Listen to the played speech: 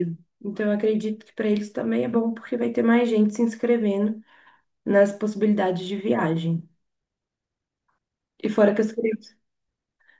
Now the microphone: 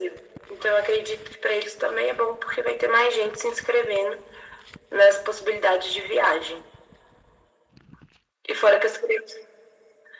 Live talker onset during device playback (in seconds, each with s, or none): none